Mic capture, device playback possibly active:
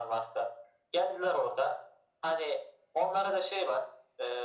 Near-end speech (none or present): none